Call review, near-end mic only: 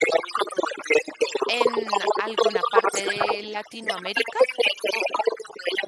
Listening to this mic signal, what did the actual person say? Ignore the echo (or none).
en alguna parte de Latinoamérica. O-